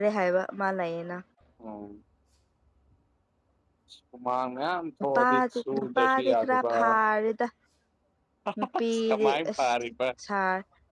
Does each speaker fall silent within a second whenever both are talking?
No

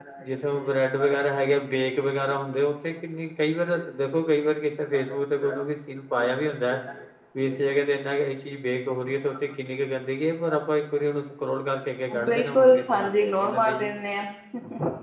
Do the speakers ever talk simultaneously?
Yes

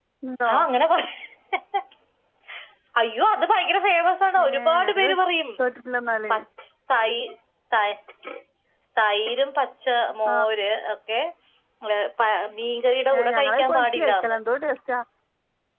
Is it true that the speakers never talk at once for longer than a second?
No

